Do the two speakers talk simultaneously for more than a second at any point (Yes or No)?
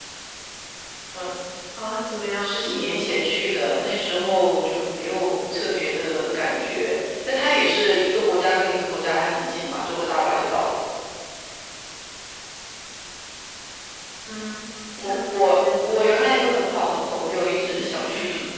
Yes